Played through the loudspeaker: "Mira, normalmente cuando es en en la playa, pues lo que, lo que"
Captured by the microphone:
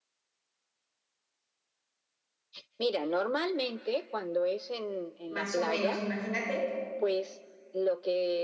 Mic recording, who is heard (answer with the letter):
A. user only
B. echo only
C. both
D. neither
C